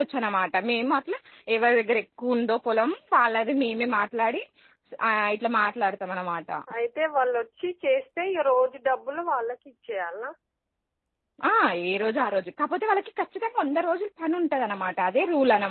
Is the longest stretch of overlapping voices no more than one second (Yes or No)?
Yes